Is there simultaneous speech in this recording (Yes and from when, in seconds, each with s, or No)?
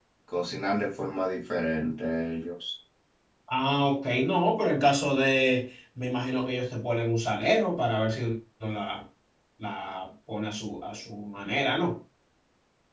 No